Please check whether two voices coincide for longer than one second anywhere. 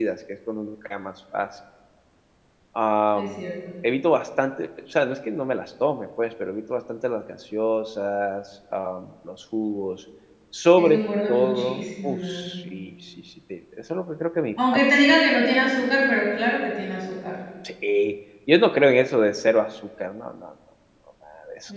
Yes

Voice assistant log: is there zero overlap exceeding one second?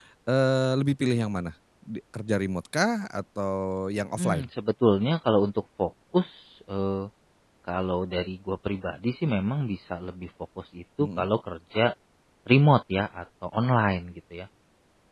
Yes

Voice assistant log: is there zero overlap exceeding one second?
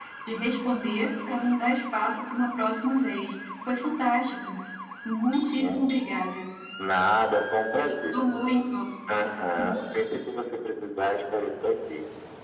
Yes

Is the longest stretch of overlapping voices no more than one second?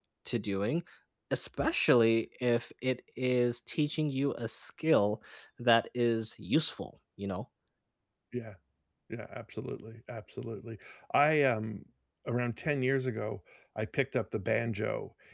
Yes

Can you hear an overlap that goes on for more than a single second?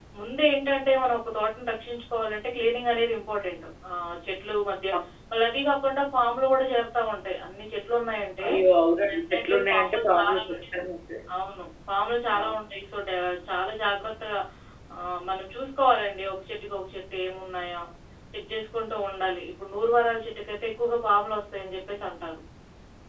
Yes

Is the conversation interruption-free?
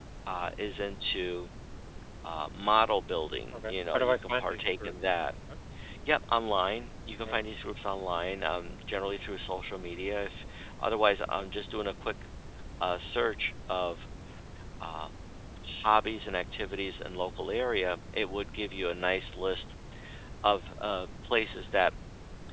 No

